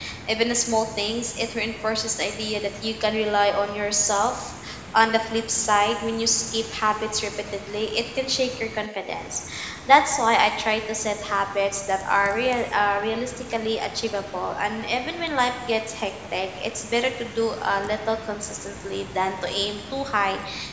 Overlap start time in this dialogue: none

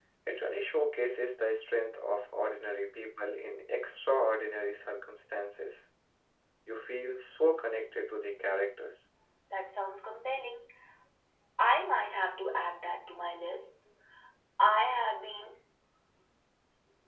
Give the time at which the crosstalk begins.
none

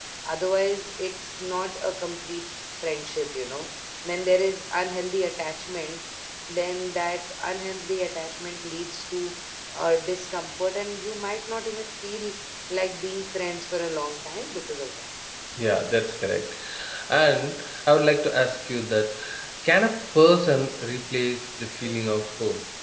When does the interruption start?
none

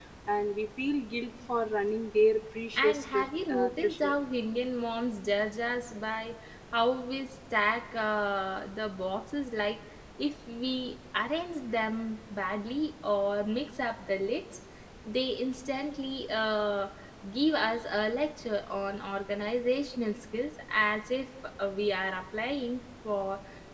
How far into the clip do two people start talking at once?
2.8 s

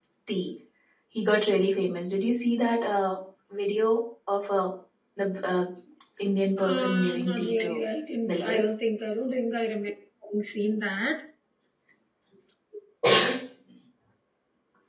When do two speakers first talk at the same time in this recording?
6.6 s

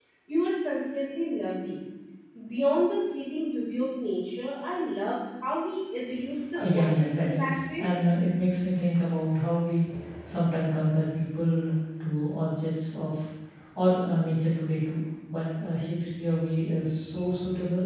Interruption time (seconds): 6.5 s

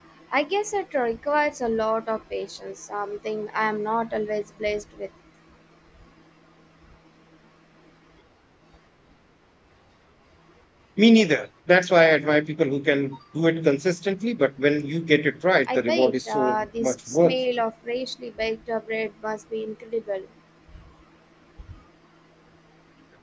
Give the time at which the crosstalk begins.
15.7 s

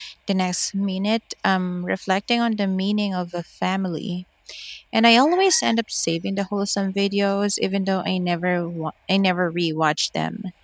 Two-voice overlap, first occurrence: none

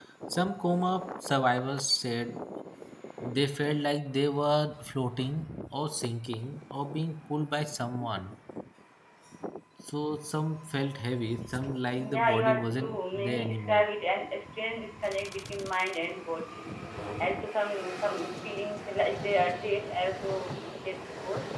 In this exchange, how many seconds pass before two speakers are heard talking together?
12.0 s

